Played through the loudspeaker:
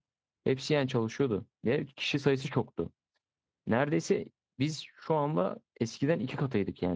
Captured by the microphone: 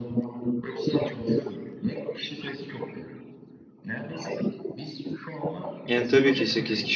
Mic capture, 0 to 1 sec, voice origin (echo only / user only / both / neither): echo only